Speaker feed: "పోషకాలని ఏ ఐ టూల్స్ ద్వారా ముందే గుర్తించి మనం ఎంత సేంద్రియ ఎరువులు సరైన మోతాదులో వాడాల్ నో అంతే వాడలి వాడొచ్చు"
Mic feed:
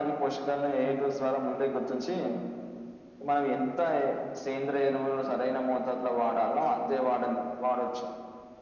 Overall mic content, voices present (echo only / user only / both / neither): echo only